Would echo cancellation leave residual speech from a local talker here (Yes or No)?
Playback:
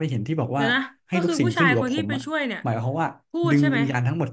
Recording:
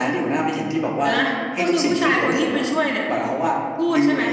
No